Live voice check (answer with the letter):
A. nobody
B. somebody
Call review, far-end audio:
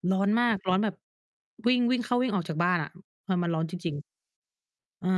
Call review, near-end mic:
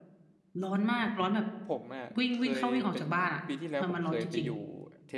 B